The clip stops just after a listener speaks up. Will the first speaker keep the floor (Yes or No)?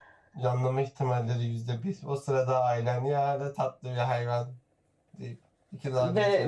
No